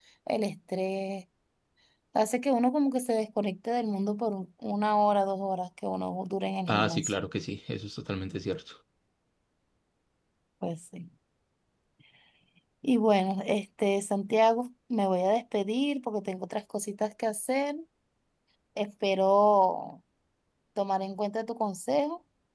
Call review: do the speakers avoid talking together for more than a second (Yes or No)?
Yes